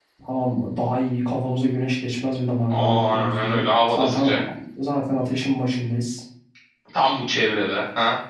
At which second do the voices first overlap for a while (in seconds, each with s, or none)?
2.7 s